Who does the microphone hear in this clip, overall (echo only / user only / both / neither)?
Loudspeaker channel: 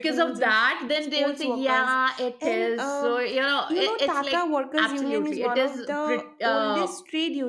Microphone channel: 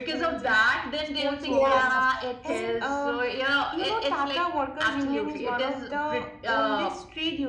both